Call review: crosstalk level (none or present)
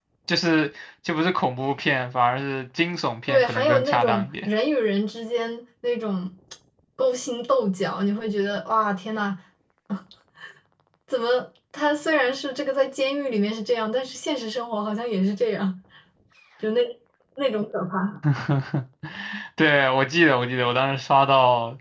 present